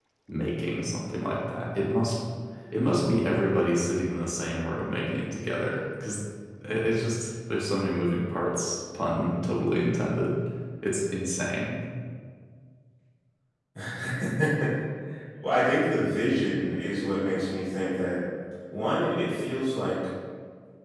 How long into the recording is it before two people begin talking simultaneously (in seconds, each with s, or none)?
none